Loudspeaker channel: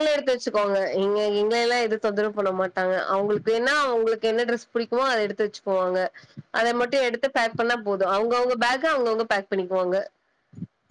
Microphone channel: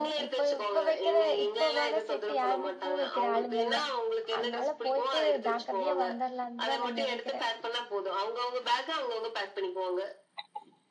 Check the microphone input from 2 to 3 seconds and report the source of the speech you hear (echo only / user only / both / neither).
both